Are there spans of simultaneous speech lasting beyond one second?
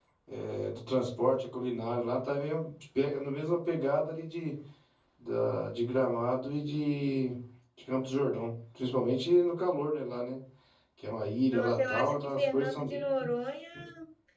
Yes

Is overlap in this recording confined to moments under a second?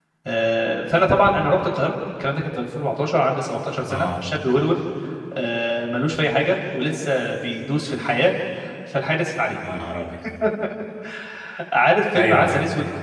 Yes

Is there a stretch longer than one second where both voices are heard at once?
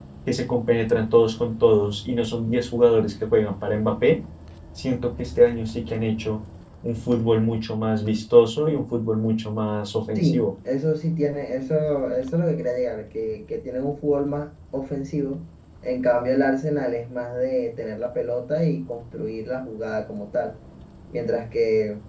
No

